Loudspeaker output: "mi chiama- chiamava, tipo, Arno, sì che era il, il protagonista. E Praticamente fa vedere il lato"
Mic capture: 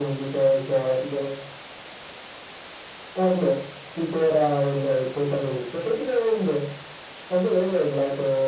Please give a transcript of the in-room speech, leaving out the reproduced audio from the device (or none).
none